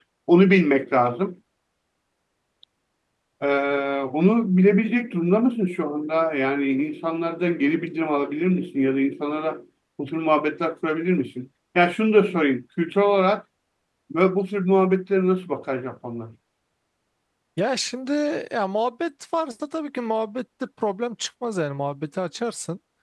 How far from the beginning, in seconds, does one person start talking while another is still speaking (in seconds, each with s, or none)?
none